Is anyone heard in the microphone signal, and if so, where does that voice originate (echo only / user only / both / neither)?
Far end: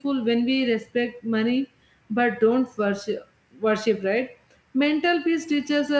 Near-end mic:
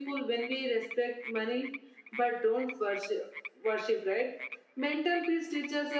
echo only